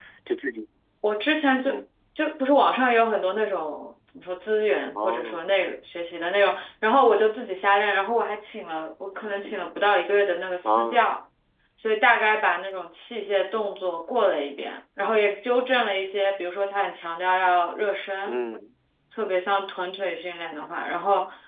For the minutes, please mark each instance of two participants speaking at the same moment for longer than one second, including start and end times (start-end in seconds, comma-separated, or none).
none